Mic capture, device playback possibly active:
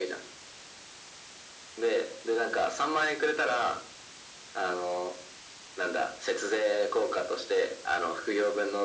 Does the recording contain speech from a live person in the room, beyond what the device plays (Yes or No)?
No